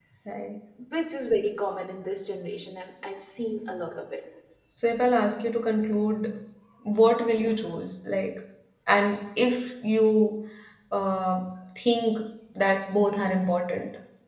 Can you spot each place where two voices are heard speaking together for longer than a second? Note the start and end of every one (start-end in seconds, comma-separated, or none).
none